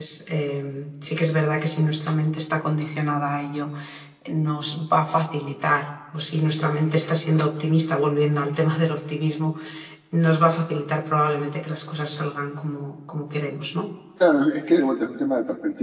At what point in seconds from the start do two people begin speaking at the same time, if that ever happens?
none

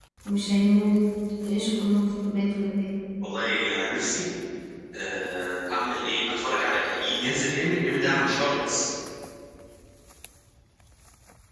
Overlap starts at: none

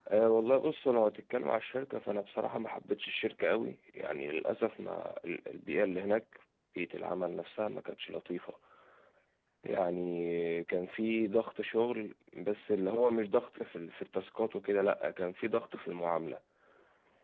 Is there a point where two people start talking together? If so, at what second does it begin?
none

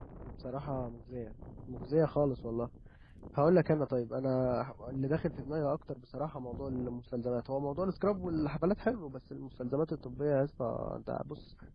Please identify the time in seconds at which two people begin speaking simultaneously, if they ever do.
none

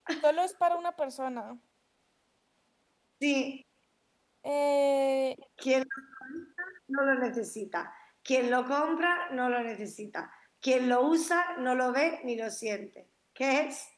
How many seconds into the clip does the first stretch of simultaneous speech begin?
none

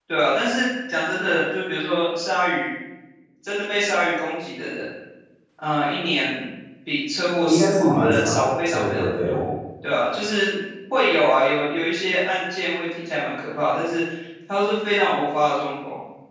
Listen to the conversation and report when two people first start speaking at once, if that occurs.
7.5 s

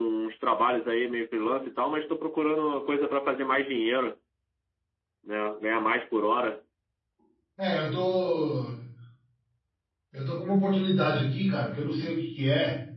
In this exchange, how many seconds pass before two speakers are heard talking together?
none

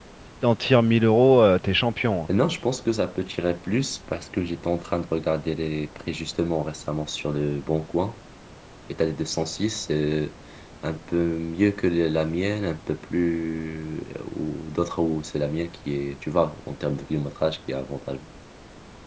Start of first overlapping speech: none

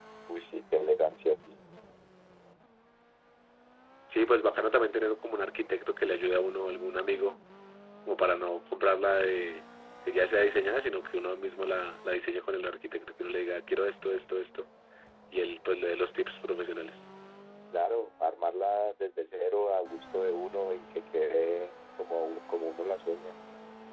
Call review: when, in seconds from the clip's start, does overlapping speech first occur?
none

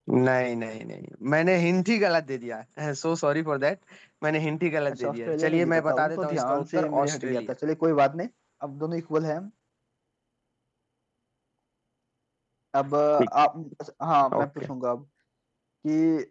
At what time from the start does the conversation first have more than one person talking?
5.0 s

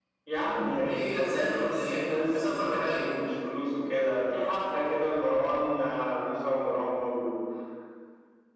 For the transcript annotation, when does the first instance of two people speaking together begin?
0.8 s

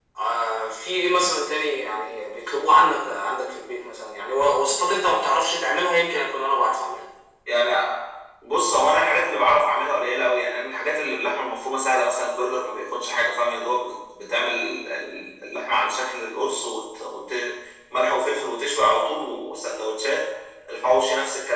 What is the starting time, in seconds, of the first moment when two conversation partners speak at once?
none

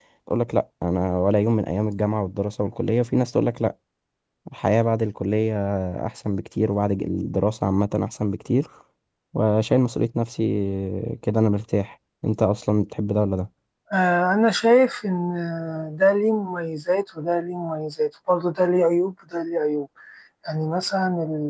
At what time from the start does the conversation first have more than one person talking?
none

